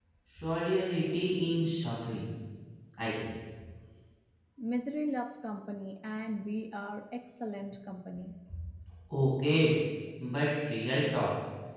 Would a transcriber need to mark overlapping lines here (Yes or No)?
No